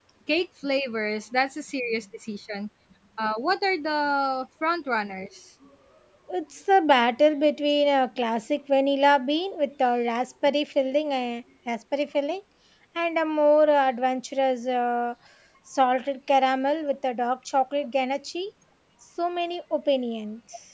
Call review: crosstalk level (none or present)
none